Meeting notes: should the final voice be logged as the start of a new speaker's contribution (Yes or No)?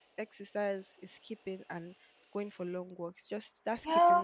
Yes